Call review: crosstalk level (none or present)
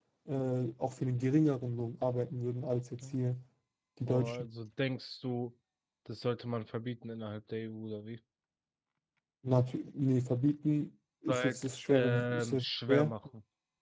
present